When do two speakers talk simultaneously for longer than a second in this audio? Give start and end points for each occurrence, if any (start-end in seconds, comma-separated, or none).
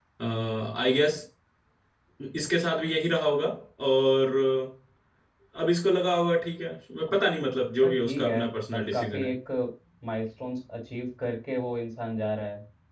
7.8-9.3